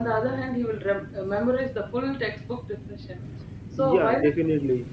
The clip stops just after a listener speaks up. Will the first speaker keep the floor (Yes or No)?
No